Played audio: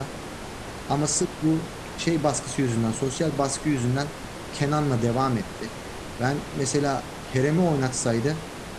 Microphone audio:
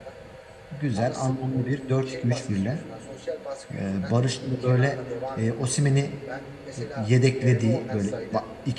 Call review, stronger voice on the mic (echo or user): user